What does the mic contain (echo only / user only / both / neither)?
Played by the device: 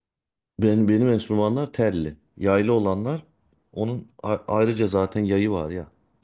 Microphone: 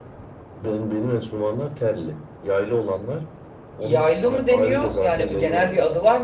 both